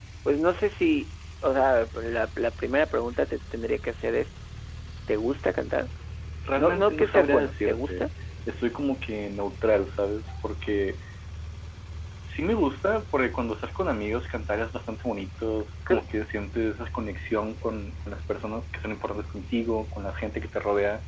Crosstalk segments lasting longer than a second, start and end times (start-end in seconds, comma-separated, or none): 6.6-8.0